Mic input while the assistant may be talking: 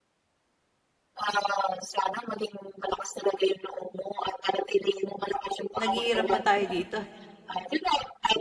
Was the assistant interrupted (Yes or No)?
Yes